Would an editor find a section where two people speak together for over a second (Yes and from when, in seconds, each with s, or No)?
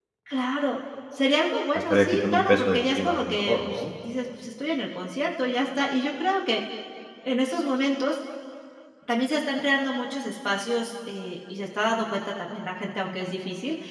Yes, from 1.9 s